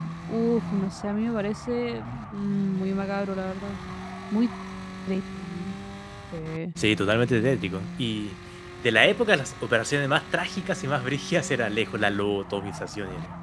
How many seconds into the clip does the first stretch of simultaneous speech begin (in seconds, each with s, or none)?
none